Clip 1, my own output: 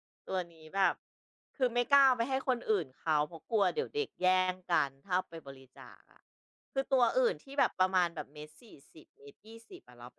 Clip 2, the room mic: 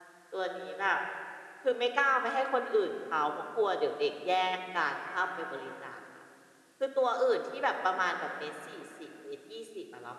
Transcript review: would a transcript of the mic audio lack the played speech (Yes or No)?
No